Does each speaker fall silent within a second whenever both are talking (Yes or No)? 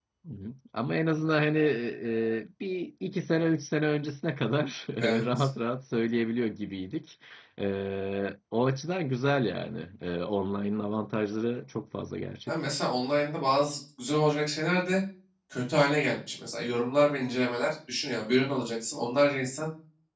Yes